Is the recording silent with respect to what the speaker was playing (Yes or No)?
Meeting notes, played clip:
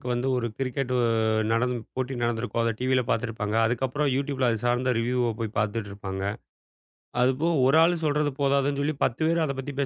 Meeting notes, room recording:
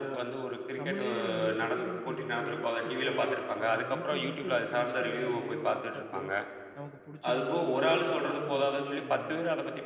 No